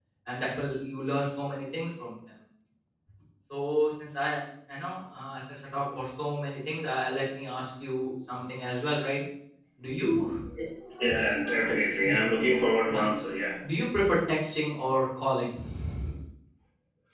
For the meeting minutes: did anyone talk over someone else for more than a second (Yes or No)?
No